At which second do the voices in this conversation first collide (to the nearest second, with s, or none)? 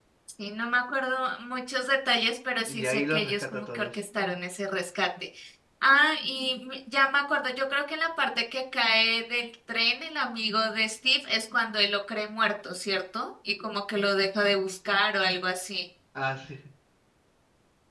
3 s